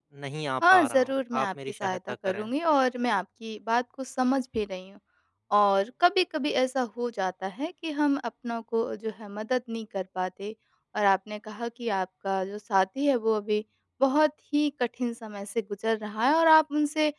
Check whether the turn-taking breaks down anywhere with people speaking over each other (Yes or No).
Yes